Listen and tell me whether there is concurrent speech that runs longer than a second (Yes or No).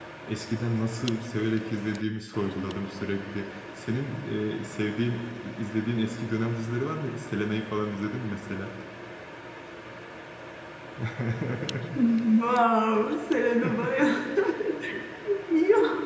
No